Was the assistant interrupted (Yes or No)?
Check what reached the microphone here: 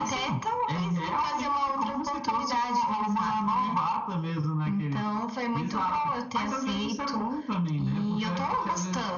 No